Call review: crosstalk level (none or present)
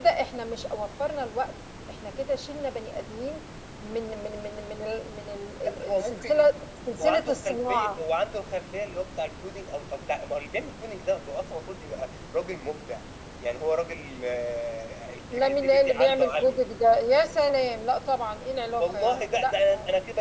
present